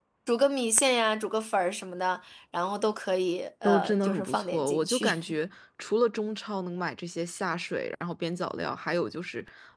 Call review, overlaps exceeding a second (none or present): present